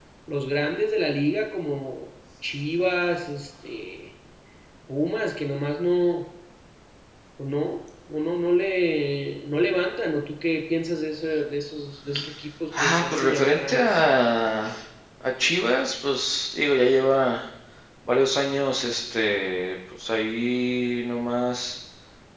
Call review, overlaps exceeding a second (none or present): present